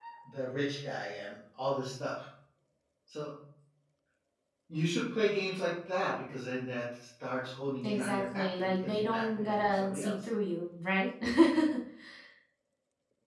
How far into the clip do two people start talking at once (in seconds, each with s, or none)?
7.8 s